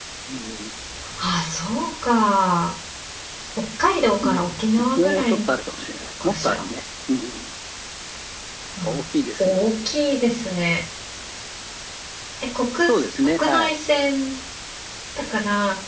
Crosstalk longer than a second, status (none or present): none